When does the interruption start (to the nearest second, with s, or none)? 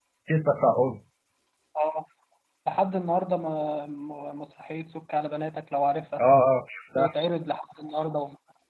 none